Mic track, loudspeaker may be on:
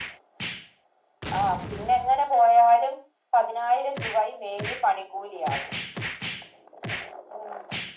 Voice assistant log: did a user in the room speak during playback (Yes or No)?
No